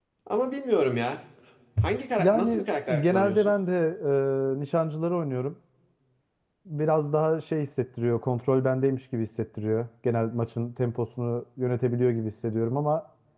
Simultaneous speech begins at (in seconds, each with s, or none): 2.2 s